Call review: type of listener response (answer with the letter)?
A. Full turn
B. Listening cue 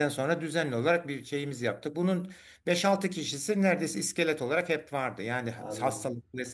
B